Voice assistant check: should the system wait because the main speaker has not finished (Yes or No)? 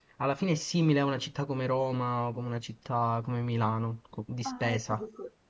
No